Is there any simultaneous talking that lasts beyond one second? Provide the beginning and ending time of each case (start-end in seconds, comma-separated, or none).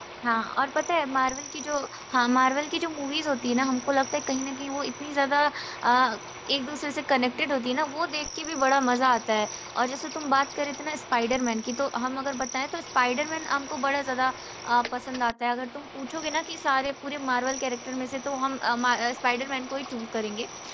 none